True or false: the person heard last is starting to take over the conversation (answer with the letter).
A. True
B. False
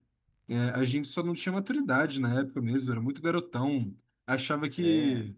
B